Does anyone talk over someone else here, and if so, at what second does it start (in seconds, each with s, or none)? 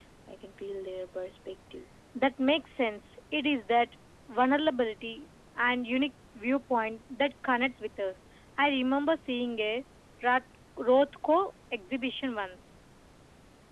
none